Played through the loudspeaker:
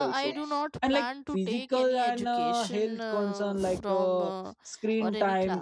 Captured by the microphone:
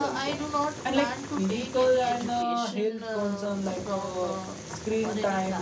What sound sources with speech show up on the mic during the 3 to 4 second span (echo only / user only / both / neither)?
echo only